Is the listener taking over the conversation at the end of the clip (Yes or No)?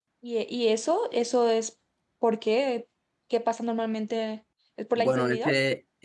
Yes